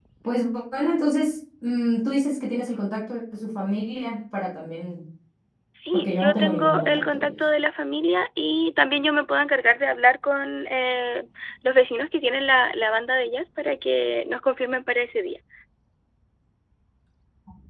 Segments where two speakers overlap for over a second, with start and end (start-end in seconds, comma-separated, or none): 5.9-7.3